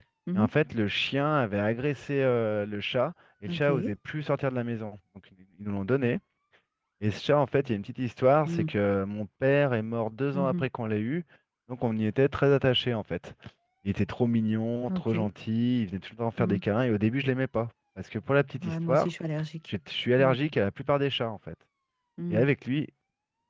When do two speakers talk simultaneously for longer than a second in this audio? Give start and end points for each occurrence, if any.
none

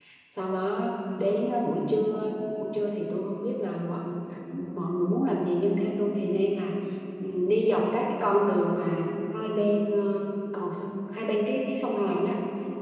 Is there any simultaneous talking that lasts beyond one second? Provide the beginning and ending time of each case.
none

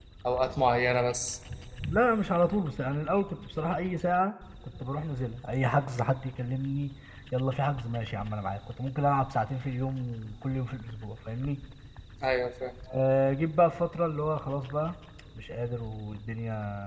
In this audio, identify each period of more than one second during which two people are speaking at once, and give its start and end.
none

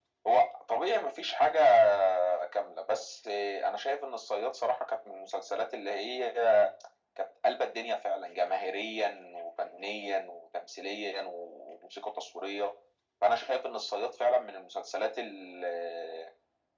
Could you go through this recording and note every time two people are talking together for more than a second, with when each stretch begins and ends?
none

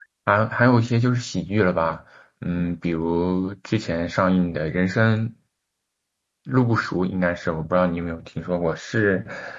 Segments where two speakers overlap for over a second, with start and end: none

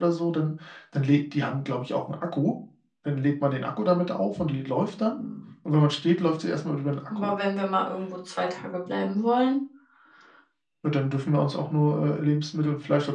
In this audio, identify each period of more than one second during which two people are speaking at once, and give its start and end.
none

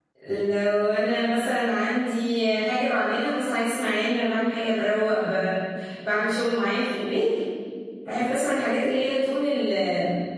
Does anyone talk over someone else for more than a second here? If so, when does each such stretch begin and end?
none

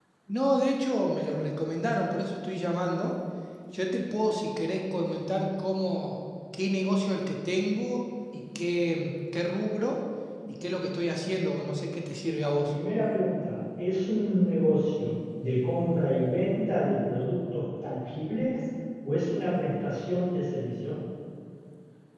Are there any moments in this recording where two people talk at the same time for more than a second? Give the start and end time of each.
none

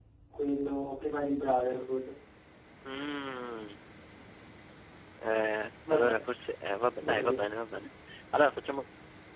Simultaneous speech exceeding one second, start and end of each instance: none

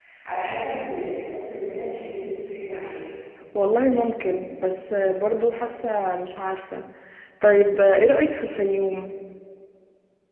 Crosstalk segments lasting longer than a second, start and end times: none

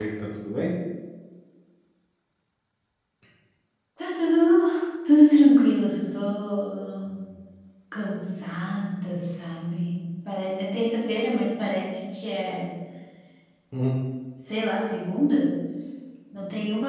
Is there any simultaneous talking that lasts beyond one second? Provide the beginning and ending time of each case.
none

